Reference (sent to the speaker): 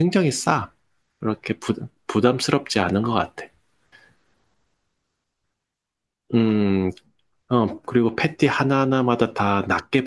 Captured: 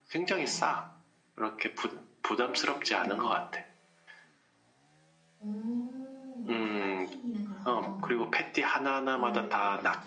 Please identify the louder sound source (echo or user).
echo